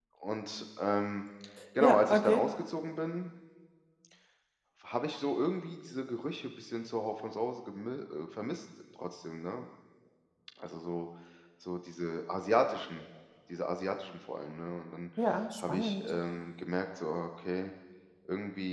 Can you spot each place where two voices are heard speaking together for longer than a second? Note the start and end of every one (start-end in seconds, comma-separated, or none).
none